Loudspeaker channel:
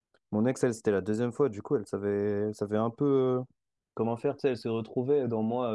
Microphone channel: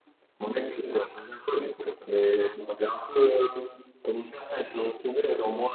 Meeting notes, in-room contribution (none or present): none